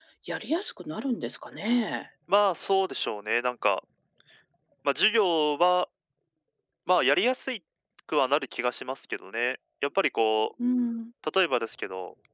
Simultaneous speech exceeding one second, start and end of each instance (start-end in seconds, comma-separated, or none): none